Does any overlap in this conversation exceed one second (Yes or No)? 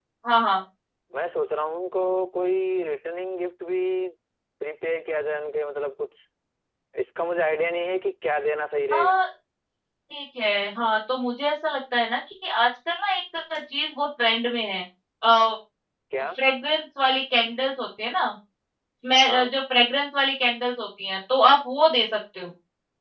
No